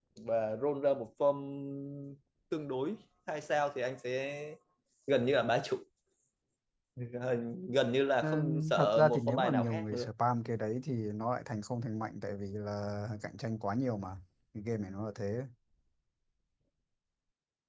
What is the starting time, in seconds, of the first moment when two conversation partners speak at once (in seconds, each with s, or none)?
8.2 s